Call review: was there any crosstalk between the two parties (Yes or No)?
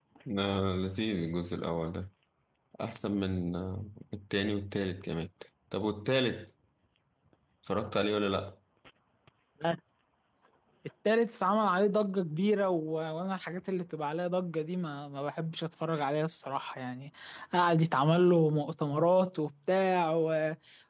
No